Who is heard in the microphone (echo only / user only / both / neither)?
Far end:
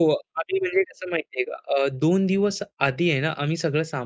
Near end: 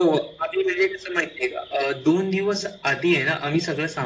echo only